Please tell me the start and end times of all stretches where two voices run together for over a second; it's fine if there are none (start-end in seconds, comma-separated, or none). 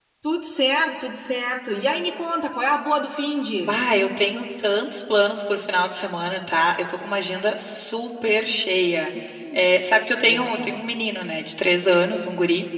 none